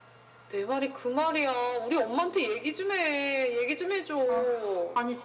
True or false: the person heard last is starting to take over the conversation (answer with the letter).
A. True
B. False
A